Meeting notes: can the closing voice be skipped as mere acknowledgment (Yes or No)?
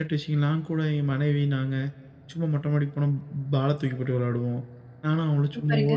Yes